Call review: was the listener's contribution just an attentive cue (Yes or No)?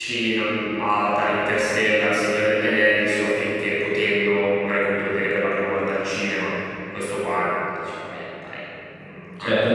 No